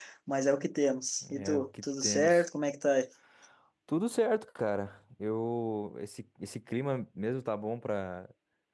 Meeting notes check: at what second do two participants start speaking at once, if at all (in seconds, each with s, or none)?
1.2 s